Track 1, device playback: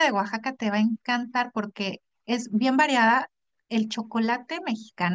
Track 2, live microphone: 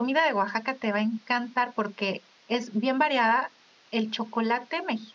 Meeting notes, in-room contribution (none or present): none